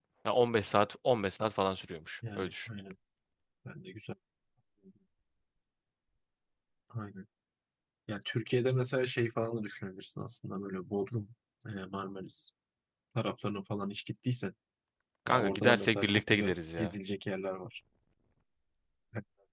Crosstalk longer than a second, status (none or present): present